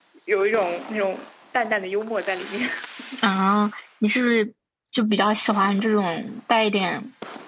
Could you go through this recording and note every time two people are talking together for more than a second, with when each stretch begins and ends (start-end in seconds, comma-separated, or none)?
none